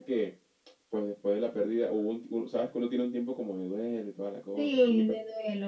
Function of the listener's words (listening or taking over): taking over